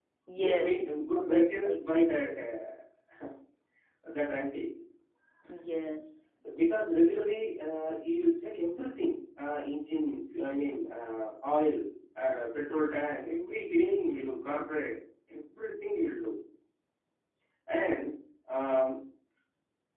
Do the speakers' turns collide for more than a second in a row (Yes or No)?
Yes